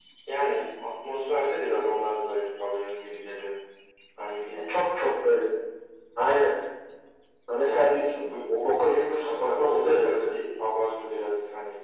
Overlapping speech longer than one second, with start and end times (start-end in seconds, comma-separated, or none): 8.6-10.3